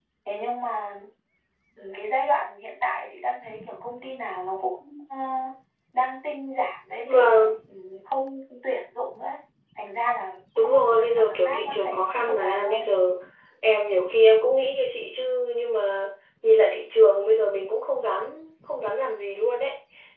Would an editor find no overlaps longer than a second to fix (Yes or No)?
No